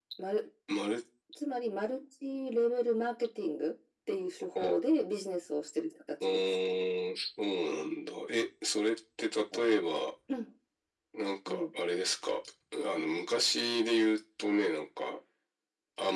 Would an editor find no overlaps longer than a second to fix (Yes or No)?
Yes